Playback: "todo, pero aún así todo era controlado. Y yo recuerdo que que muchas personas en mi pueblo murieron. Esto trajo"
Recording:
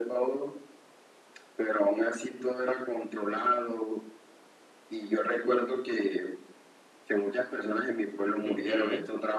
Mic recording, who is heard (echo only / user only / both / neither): both